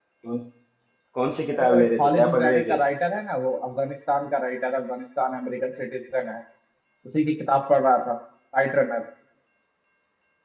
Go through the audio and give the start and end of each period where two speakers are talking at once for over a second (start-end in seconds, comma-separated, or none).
1.6-2.8